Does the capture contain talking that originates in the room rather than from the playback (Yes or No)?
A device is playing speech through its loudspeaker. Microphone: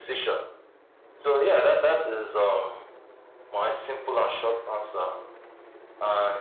No